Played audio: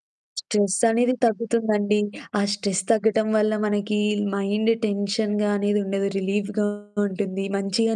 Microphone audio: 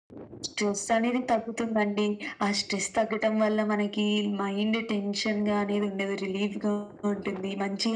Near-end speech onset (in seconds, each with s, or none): none